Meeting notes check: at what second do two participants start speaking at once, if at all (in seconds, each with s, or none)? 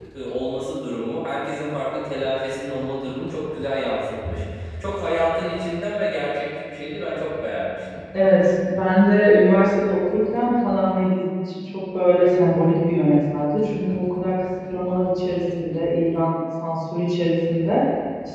none